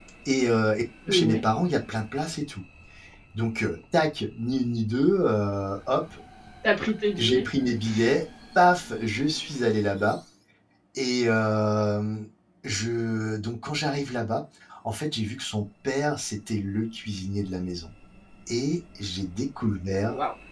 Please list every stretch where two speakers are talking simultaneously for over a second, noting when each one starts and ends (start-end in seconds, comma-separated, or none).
none